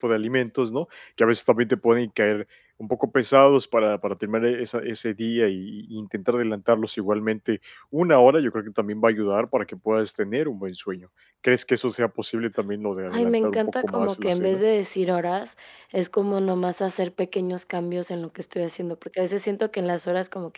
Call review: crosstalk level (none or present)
present